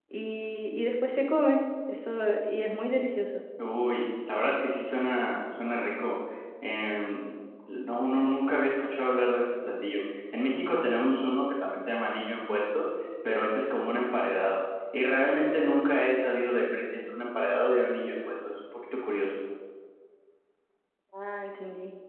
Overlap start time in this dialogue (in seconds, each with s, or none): none